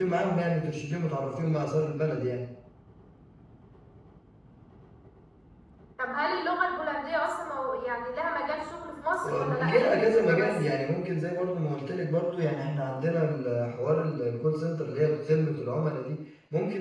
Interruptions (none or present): present